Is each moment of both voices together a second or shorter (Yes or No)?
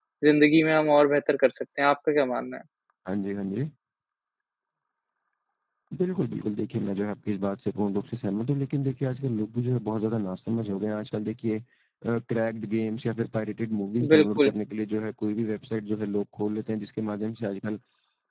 Yes